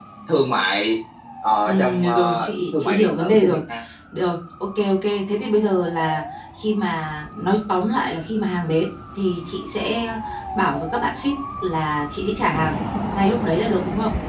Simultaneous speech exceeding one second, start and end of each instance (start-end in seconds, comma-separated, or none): 1.7-3.6